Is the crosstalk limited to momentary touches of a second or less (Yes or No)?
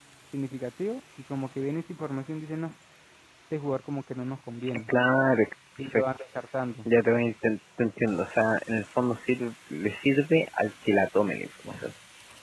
Yes